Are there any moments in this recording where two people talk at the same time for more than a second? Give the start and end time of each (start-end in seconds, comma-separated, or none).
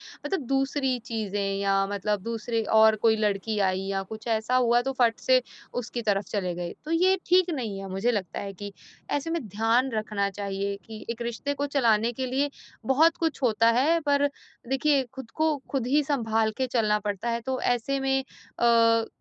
none